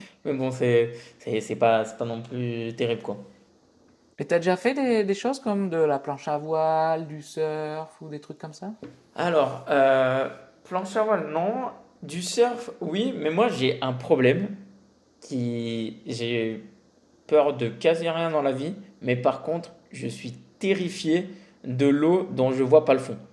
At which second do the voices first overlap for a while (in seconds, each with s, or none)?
none